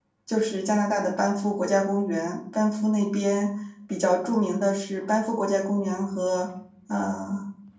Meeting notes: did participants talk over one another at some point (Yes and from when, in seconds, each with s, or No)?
No